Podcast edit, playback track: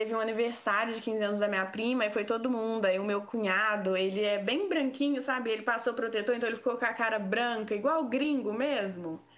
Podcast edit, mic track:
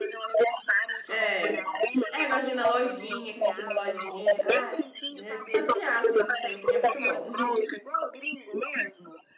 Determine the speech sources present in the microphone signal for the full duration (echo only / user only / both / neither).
both